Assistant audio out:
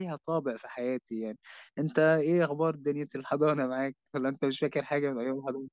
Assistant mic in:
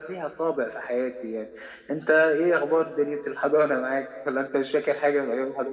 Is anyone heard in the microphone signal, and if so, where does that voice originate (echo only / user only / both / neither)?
echo only